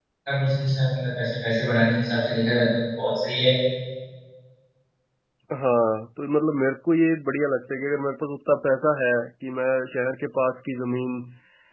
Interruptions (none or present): none